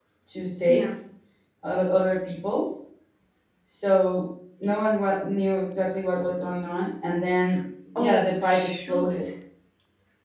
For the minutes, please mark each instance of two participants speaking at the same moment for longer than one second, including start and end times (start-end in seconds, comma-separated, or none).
8.0-9.3